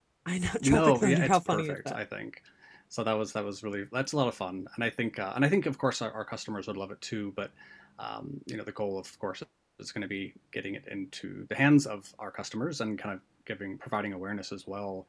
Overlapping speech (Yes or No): Yes